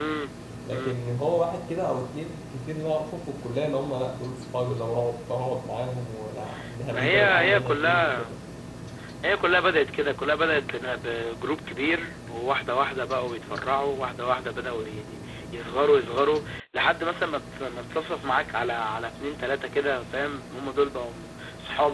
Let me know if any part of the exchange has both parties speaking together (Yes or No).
Yes